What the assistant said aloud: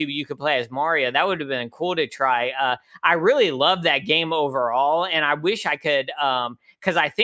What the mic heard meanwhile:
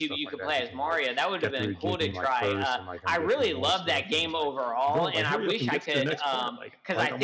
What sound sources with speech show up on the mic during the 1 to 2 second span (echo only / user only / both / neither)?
both